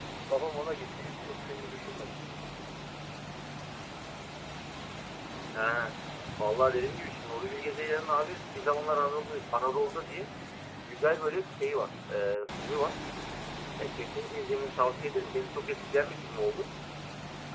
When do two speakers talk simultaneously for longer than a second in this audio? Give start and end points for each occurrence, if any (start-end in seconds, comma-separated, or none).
none